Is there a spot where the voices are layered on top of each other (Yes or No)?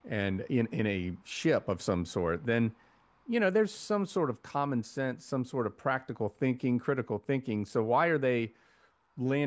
No